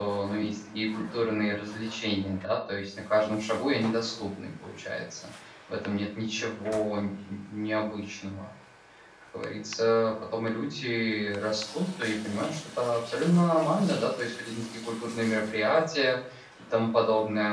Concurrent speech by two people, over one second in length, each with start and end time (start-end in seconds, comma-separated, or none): none